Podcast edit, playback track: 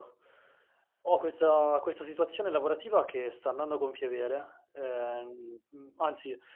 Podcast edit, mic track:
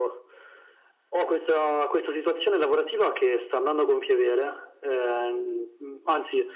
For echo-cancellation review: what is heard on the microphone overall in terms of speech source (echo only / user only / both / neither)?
echo only